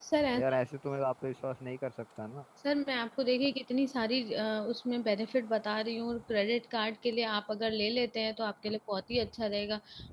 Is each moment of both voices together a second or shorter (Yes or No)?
Yes